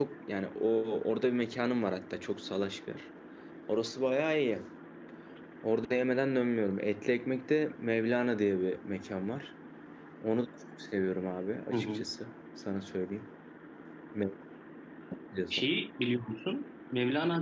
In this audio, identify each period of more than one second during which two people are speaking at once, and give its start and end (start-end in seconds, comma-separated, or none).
none